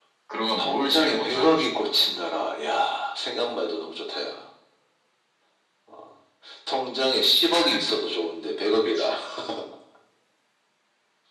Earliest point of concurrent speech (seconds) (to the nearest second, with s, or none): 1 s